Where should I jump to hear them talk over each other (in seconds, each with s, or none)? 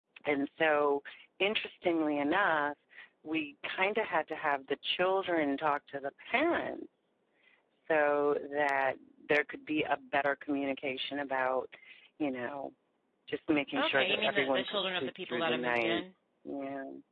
13.8 s